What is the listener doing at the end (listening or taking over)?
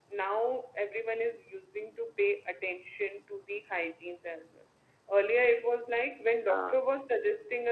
listening